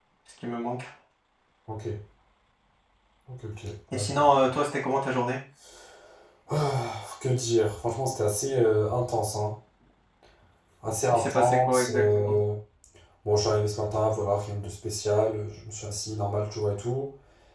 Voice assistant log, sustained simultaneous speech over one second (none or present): present